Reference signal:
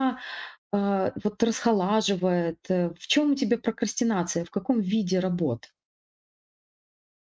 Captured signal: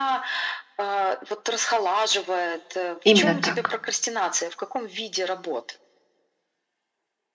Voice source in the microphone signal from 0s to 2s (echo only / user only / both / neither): echo only